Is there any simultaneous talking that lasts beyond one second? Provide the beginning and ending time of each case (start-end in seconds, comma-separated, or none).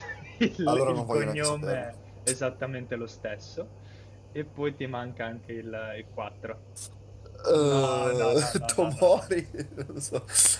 0.7-1.9, 7.5-9.2